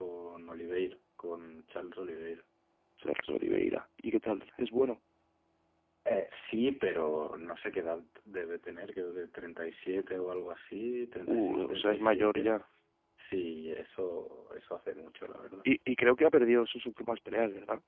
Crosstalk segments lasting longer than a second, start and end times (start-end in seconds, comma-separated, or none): 11.3-12.5